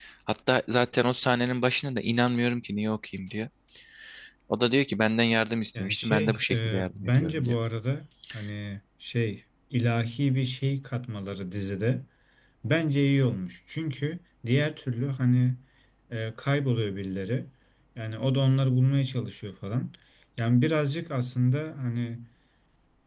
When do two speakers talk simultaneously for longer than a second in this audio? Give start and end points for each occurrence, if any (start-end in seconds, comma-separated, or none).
5.8-7.6